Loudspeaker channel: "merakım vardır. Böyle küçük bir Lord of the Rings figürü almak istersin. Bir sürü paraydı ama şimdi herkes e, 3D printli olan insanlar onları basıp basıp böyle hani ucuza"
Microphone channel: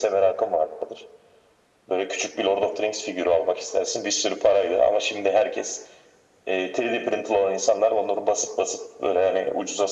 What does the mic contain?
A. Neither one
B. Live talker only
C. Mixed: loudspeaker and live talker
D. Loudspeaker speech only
D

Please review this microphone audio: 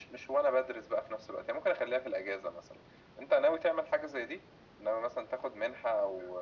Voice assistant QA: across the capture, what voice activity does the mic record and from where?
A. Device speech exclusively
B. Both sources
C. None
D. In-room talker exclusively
A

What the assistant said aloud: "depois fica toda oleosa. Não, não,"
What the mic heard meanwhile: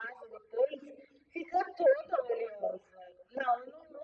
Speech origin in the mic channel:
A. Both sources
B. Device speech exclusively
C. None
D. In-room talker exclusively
B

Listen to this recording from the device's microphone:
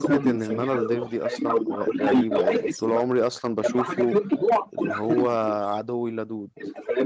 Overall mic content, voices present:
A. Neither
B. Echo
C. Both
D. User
C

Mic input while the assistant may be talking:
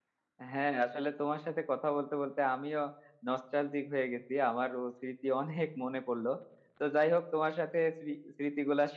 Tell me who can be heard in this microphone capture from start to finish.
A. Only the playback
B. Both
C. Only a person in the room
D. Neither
C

